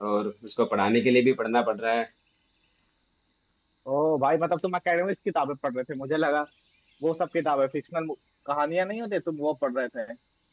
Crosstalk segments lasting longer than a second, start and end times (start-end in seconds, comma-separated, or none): none